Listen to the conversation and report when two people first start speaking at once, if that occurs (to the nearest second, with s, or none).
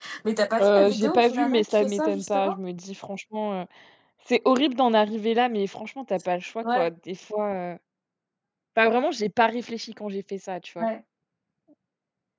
1 s